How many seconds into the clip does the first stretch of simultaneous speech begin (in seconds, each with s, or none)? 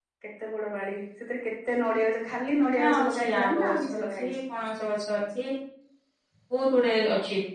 2.7 s